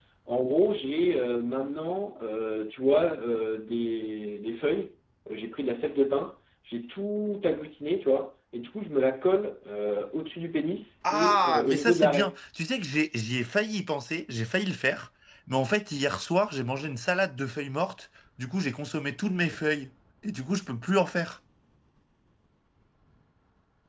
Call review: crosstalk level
present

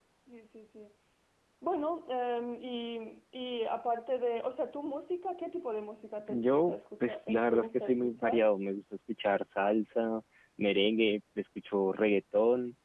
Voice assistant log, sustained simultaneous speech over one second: present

